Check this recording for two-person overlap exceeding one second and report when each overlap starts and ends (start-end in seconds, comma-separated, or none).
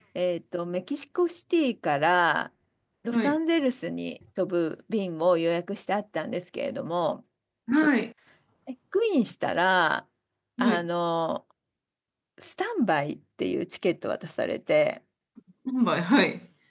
none